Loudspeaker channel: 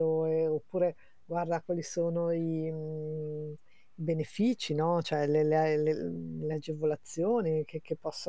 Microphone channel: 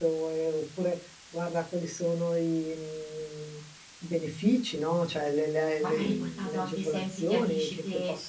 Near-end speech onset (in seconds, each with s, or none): 5.8 s